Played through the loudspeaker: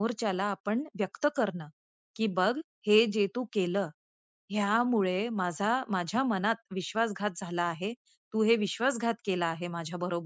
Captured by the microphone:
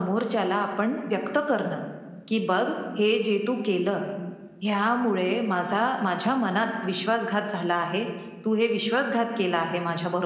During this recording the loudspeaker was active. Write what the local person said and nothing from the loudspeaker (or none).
none